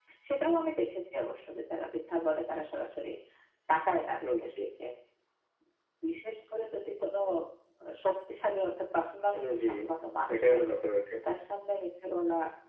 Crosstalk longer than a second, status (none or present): none